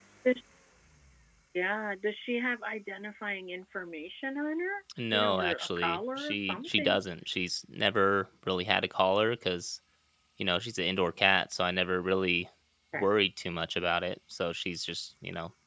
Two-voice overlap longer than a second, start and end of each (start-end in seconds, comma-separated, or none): 5.1-7.0